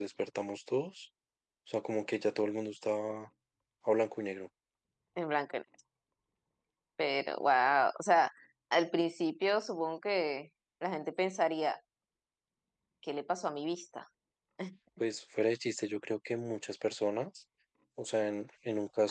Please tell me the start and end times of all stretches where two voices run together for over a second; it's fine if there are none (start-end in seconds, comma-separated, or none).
none